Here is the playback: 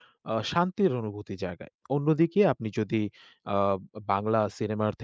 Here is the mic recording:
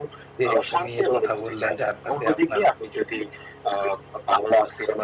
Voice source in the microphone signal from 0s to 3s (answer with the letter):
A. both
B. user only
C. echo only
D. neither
A